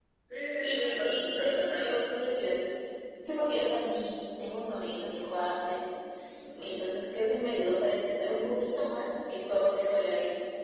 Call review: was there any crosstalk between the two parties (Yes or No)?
Yes